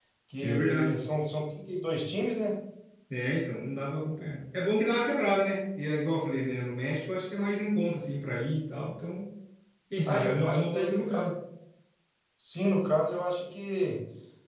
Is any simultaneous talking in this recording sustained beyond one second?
Yes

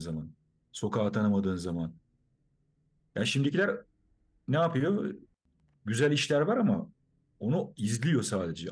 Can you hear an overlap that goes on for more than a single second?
No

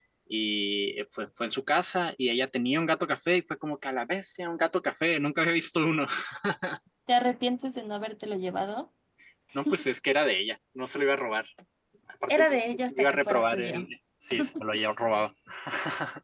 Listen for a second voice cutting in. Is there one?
Yes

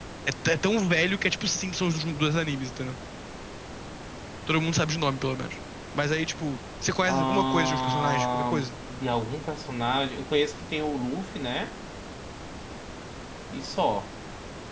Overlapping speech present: Yes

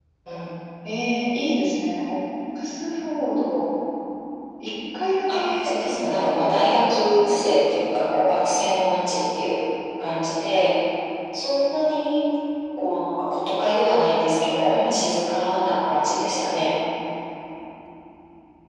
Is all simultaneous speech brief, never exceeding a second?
No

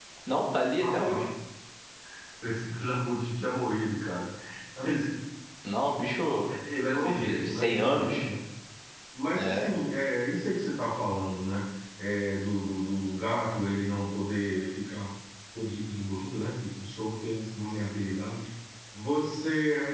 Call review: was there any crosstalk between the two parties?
Yes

